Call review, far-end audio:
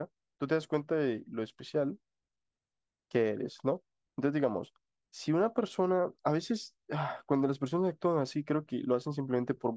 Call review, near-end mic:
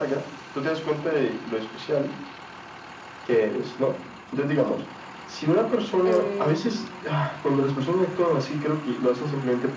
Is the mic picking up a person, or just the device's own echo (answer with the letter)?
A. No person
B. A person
B